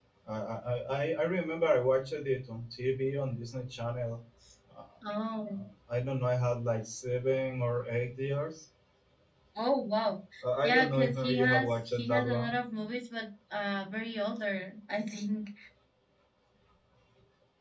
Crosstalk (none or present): present